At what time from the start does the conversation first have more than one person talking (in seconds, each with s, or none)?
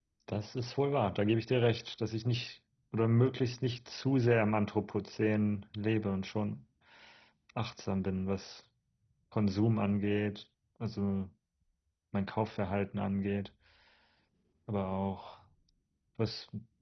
none